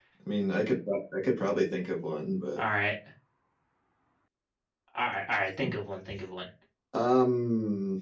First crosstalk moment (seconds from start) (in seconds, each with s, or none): none